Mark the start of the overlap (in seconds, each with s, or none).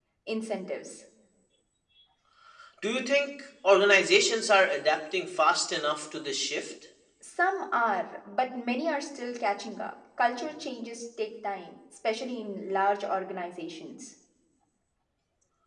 none